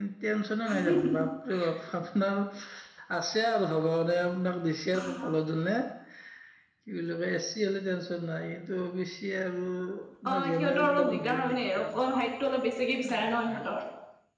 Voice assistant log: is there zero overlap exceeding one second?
No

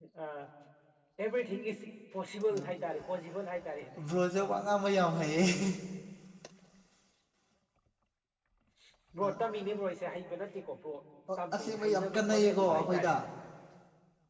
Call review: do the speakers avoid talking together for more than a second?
No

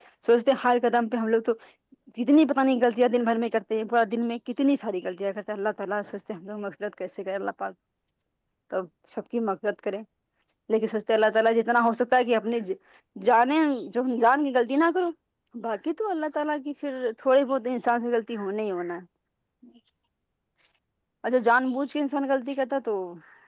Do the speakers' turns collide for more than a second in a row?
No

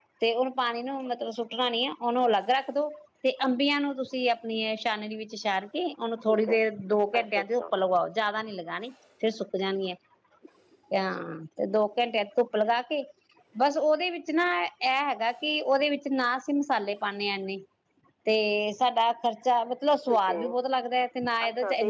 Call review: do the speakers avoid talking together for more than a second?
Yes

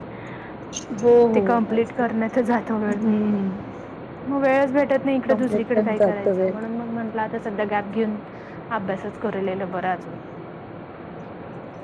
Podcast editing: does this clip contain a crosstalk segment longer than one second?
Yes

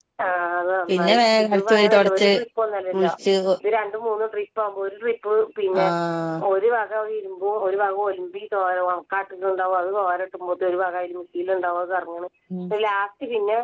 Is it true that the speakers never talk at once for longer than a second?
No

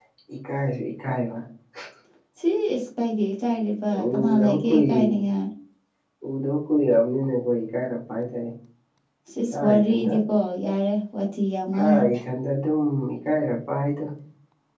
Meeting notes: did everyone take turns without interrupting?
No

